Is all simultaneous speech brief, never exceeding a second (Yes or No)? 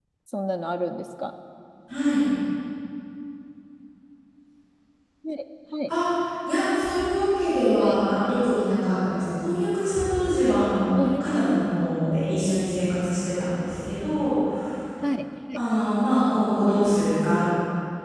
Yes